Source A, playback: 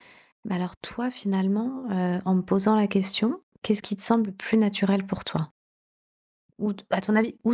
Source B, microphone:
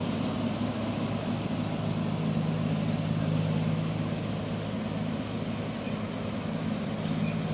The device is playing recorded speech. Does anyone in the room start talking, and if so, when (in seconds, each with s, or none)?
none